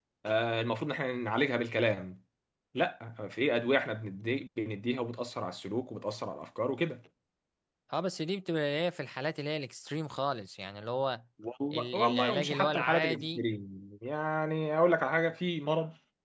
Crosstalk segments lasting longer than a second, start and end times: 11.7-13.4

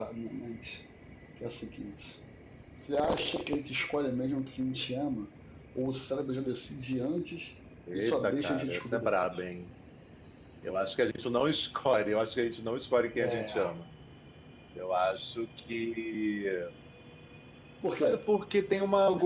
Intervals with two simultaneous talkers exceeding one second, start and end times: 7.9-9.3

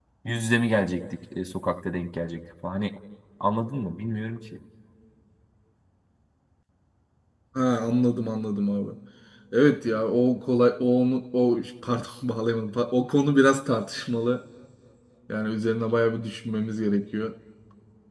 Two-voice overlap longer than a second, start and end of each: none

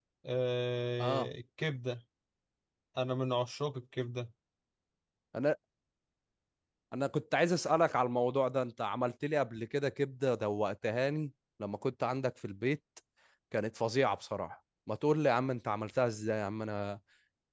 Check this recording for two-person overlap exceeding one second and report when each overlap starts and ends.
none

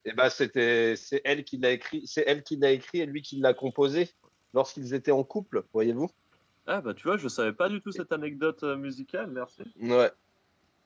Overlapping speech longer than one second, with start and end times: none

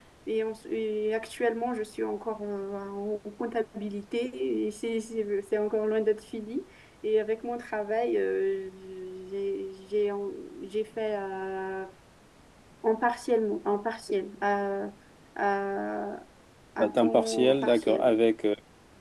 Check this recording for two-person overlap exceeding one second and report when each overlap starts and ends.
16.8-18.2

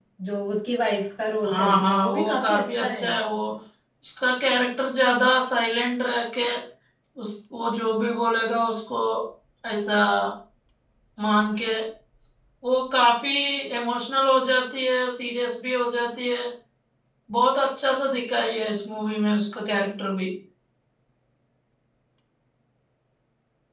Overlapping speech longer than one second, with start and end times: 1.5-3.1

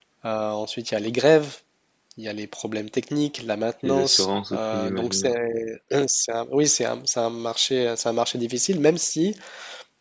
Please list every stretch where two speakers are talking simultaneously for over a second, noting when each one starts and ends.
3.8-5.3

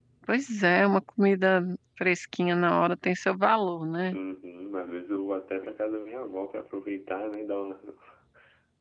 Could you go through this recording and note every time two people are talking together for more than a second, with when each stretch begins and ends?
none

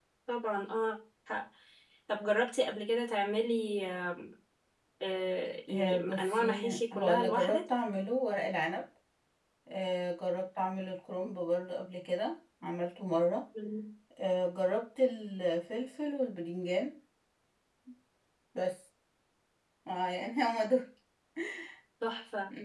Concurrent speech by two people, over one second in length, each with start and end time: 5.7-7.6

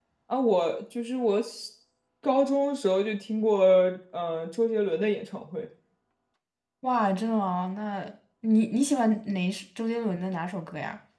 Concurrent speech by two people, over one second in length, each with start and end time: none

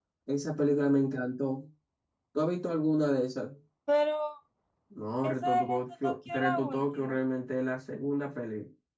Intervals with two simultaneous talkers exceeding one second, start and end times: 5.2-7.2

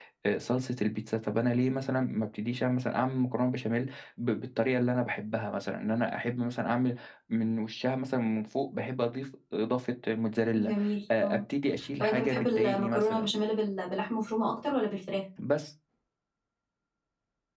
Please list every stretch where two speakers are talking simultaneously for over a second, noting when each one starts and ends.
12.0-13.3

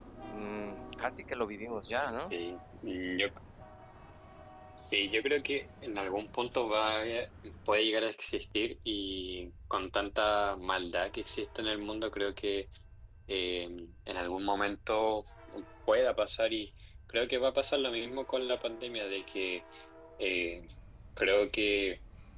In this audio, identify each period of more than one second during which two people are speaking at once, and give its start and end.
none

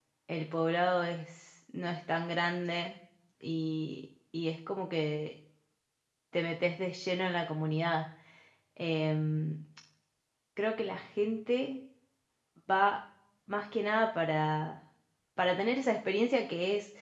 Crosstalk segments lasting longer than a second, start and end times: none

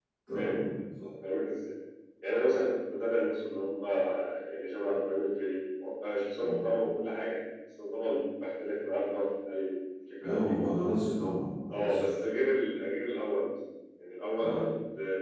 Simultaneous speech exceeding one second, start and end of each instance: none

